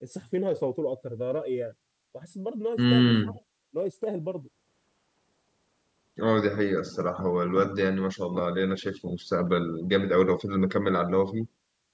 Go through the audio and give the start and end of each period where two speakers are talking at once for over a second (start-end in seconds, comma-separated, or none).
none